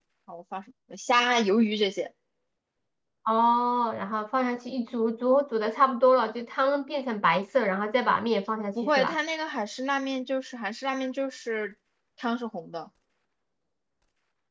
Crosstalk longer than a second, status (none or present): none